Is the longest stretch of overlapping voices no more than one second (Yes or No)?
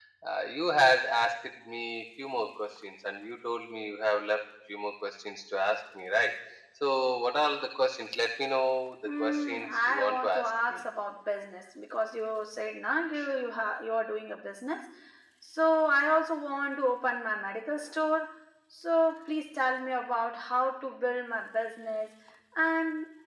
No